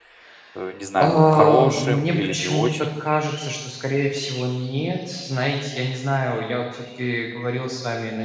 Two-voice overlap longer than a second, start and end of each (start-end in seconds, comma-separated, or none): 1.0-2.9